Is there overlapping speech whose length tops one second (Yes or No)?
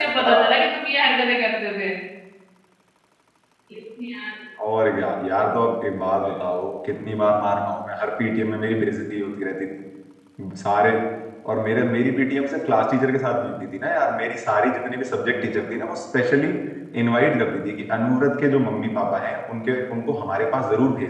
No